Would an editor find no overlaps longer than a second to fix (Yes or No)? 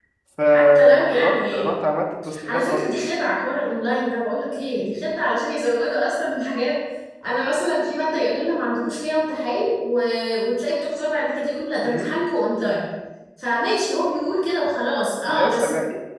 No